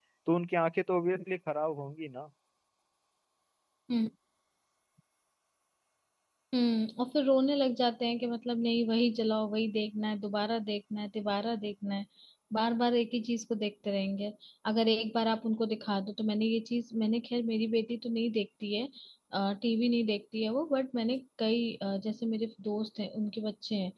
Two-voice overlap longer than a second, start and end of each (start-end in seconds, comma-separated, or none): none